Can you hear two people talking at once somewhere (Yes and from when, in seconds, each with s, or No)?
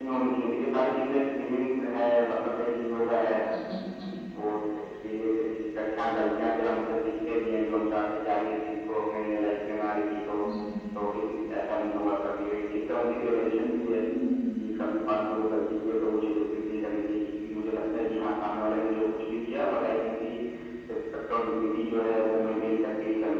No